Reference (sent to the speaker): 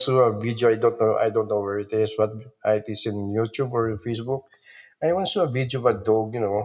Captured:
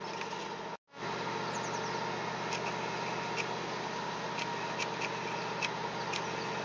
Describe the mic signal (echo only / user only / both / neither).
neither